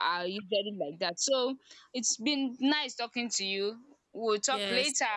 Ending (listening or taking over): taking over